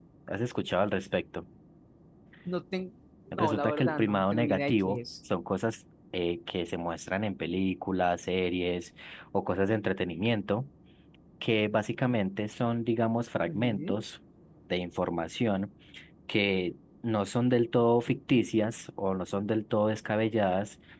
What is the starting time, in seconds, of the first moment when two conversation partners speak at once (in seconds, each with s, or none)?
3.4 s